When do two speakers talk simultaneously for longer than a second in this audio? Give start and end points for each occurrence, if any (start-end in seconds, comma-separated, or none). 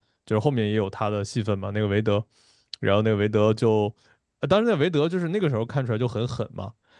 none